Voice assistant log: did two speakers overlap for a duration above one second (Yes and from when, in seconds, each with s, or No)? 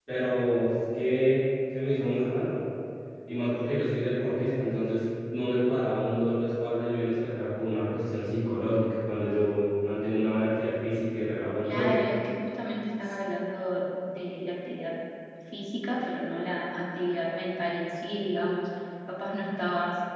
No